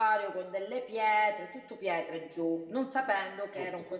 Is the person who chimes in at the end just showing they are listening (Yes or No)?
Yes